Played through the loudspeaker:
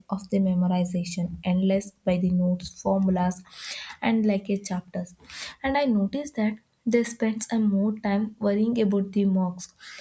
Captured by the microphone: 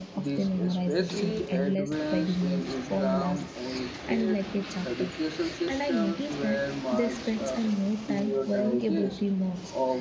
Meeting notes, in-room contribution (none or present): present